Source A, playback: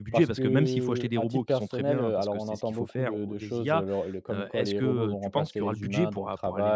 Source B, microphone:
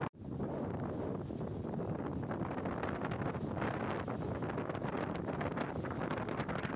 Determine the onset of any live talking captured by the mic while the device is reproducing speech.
none

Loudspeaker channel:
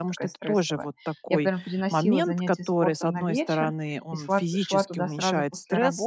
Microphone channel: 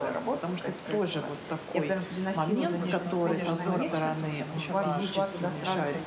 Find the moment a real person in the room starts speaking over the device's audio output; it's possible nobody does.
2 s

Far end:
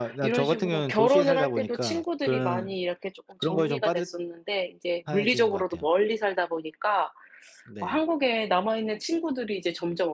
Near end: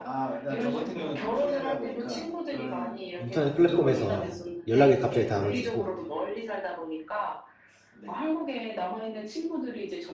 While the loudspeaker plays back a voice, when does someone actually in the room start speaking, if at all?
3 s

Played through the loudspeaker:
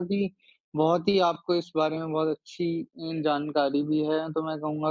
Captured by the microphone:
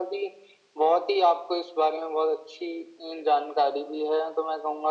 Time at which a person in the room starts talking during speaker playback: none

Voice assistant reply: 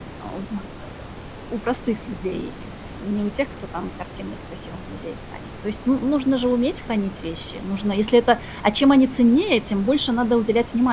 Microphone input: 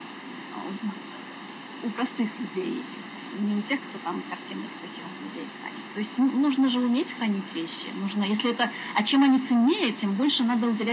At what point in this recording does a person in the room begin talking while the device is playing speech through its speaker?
none

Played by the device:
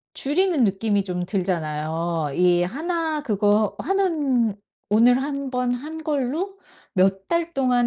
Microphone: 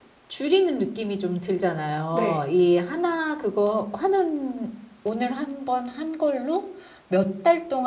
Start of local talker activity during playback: 2 s

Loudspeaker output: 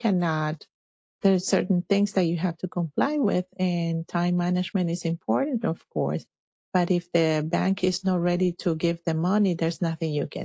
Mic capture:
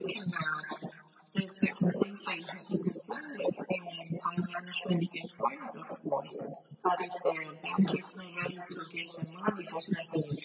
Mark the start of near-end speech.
none

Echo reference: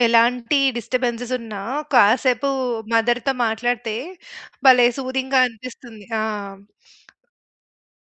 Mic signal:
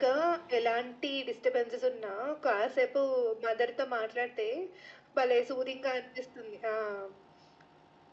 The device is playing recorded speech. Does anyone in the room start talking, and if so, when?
none

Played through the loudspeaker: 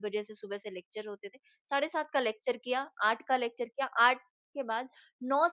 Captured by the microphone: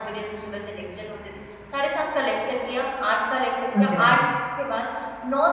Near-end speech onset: 4 s

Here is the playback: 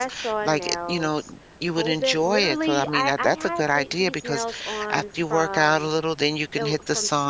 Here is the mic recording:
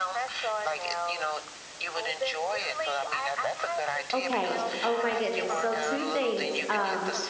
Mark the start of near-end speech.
4 s

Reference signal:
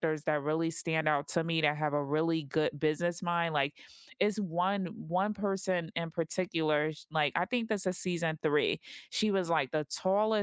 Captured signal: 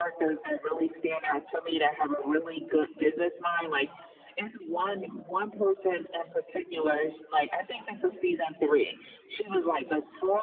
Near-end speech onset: none

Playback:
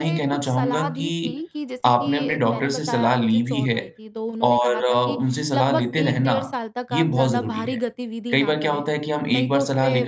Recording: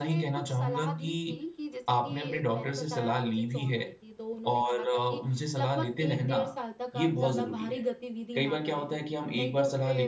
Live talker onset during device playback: none

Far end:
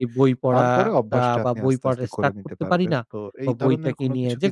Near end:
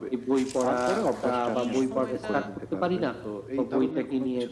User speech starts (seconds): 2 s

